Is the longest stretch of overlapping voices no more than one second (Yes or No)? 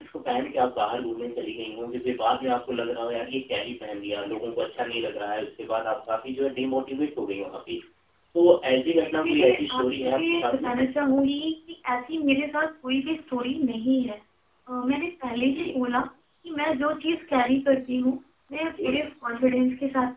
No